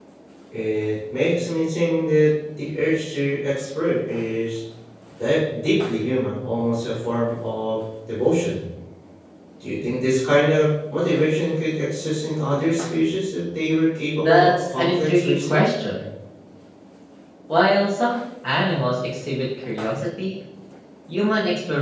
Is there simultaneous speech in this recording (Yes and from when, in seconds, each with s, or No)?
Yes, from 14.2 s